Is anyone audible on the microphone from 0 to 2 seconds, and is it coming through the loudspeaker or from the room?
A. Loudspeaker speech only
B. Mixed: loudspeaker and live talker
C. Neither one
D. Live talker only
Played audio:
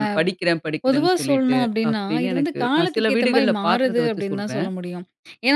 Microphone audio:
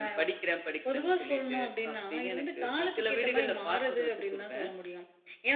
A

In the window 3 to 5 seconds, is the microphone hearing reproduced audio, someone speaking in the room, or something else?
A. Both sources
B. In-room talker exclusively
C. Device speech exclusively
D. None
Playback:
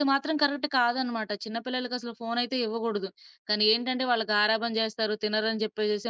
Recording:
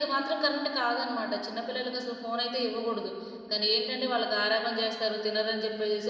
C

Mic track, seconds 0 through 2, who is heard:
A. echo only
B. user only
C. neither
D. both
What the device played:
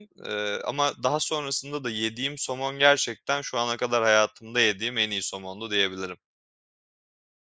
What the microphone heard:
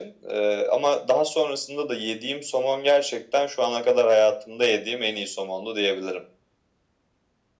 A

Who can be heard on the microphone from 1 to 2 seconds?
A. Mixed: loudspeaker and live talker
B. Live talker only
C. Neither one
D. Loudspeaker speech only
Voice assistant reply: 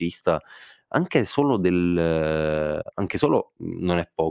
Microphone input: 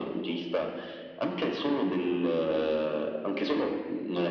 D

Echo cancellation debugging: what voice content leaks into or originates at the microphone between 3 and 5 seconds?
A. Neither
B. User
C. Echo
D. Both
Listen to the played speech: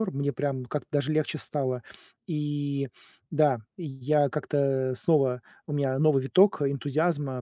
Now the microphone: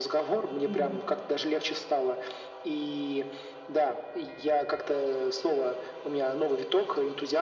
C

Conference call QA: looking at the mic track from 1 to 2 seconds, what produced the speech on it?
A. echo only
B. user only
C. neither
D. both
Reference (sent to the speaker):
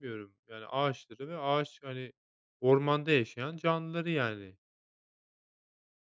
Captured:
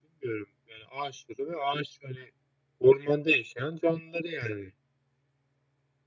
A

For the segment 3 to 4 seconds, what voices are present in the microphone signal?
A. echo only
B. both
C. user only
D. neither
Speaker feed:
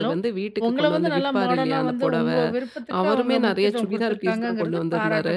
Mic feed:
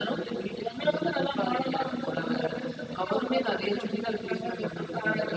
A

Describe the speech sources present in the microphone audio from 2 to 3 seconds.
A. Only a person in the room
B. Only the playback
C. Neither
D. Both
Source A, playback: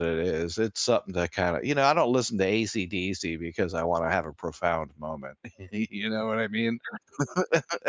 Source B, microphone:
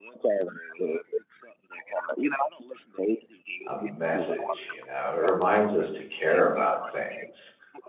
B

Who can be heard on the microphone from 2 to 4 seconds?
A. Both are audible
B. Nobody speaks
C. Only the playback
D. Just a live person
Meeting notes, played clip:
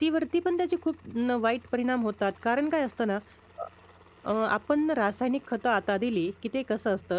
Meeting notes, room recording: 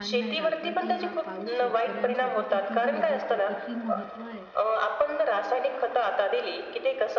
A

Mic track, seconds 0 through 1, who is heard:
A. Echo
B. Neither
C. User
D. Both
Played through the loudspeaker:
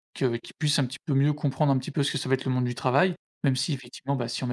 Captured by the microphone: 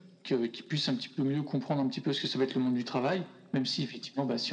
A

